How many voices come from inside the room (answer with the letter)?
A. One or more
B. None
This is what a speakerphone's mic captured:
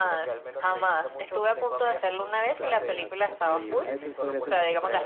A